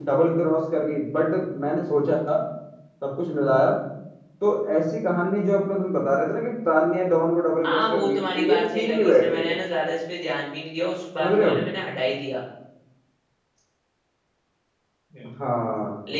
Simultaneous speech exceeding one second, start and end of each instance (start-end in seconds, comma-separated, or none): 7.7-9.6